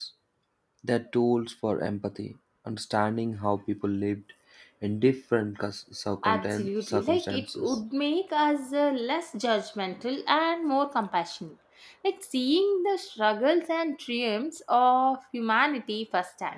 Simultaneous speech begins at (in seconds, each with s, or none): 6.2 s